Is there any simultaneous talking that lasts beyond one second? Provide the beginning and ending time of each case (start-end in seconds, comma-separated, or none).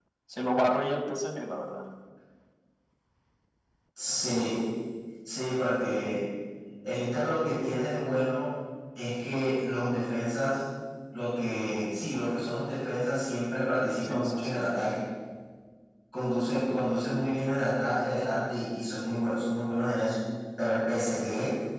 none